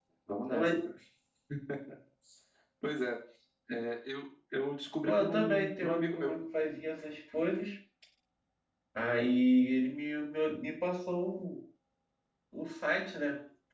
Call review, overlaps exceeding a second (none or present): present